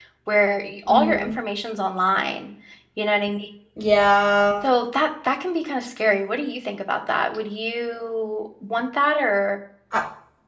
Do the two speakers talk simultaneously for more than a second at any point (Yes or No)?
No